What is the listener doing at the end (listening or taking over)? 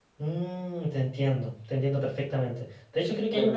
listening